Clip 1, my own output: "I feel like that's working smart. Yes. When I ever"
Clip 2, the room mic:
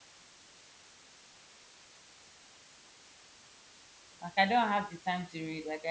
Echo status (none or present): none